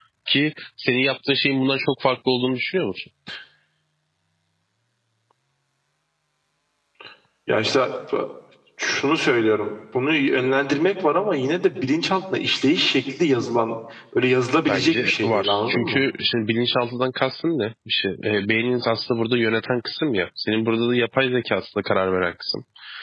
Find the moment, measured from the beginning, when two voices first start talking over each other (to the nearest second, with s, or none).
15 s